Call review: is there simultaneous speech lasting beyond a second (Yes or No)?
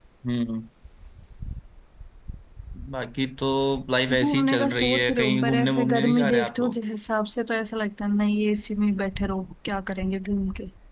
Yes